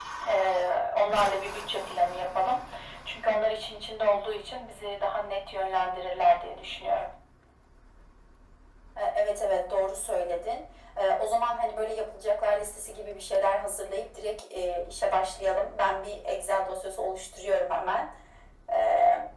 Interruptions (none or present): none